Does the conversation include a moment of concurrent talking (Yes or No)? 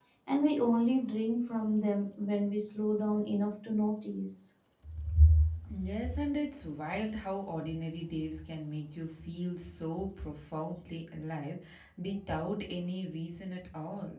No